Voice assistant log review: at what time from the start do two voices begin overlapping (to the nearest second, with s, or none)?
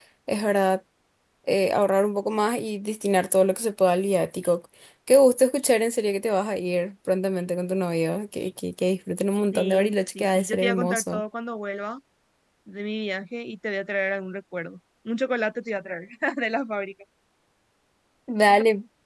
10 s